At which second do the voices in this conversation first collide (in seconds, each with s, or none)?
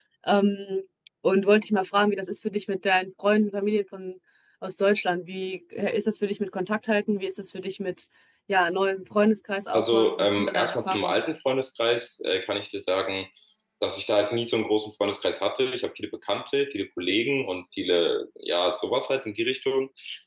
9.7 s